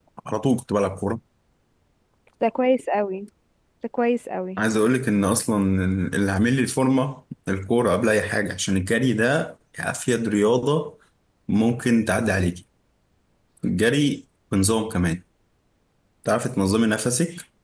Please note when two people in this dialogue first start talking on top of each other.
none

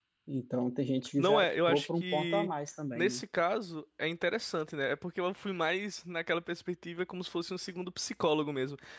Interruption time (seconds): 1.2 s

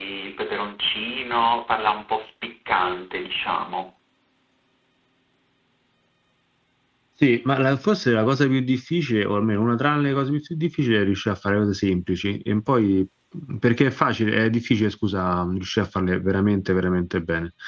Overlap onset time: none

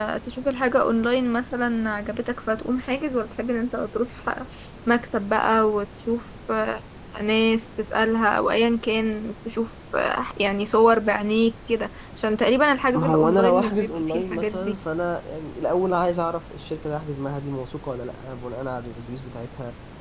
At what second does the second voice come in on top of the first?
12.9 s

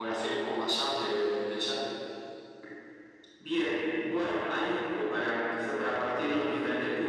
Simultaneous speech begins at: none

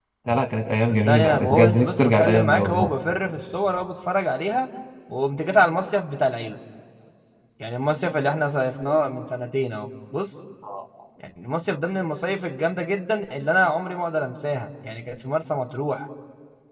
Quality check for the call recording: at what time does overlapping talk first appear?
0.9 s

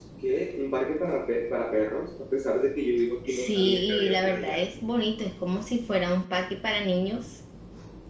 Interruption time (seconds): 3.2 s

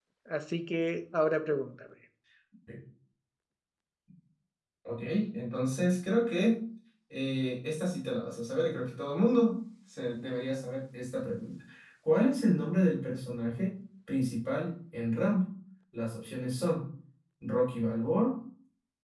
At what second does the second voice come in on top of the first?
none

